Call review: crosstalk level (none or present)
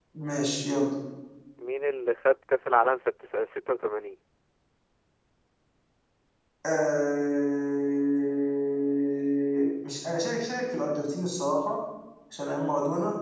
none